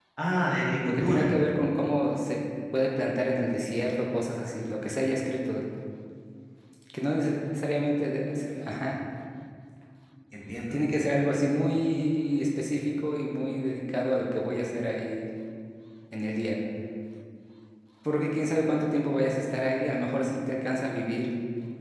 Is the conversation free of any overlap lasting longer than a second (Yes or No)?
Yes